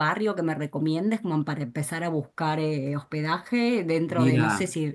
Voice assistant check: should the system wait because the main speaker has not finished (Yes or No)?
Yes